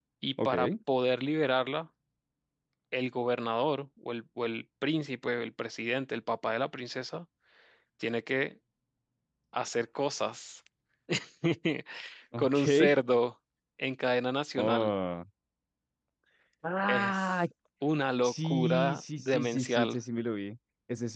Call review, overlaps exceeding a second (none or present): present